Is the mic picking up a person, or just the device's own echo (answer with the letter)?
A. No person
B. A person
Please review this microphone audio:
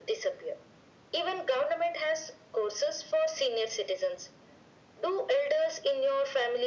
A